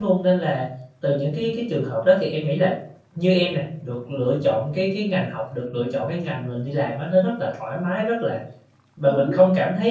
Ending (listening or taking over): listening